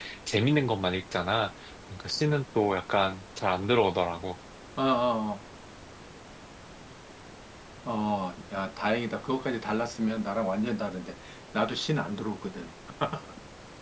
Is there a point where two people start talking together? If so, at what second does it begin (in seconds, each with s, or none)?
none